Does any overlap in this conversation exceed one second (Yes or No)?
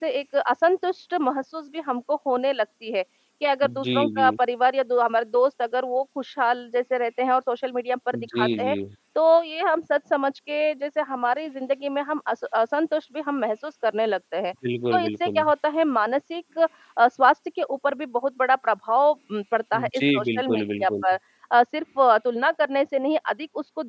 Yes